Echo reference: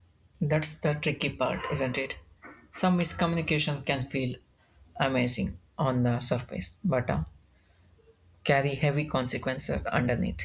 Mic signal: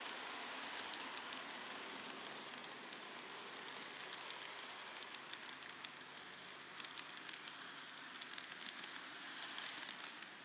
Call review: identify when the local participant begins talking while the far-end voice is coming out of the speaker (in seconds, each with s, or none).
none